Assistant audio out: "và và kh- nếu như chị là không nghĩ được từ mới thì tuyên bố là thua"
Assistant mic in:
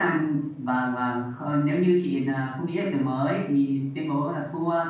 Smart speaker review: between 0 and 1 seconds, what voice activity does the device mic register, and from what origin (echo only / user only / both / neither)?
echo only